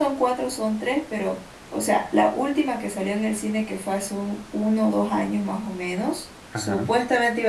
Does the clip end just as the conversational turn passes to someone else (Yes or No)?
No